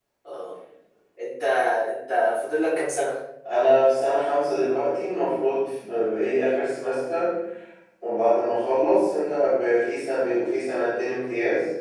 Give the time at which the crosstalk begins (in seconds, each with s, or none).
none